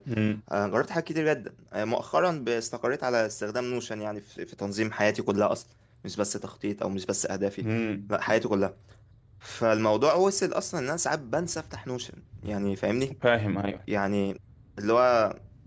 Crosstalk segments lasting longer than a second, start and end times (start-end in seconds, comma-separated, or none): none